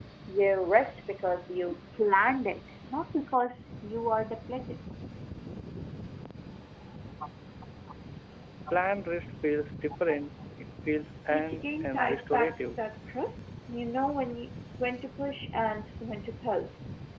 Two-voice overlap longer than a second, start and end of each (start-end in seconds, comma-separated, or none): 11.3-12.8